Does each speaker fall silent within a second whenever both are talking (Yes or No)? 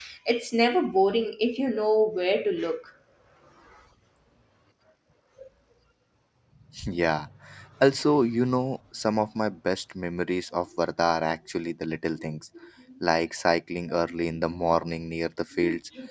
Yes